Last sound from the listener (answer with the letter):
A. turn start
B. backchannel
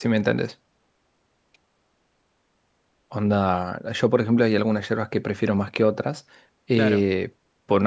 B